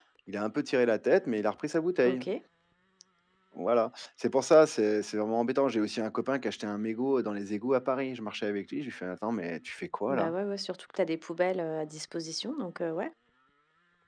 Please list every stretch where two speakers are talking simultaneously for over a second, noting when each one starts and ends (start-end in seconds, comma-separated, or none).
none